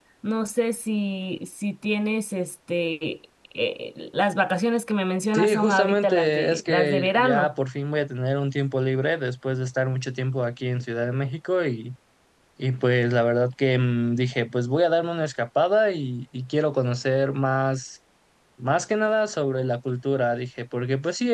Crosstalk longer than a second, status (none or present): present